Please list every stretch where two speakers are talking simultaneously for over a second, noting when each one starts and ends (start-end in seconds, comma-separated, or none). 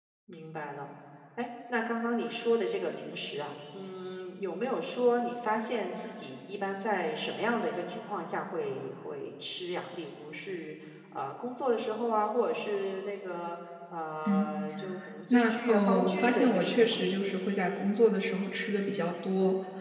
15.3-17.0